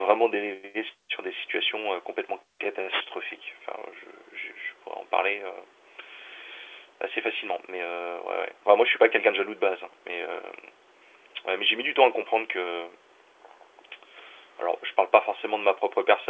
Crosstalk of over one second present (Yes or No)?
No